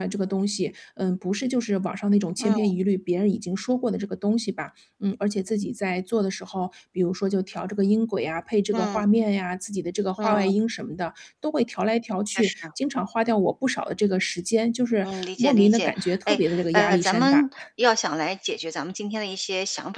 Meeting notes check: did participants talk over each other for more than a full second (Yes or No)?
Yes